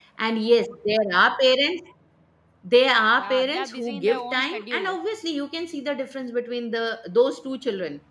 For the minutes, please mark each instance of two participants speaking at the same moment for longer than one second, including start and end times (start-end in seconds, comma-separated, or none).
3.2-5.0